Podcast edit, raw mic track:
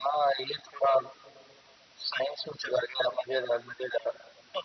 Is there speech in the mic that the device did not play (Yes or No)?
No